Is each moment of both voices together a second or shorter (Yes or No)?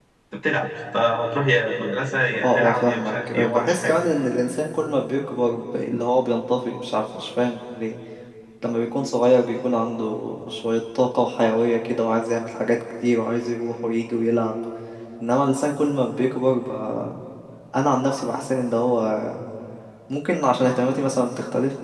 No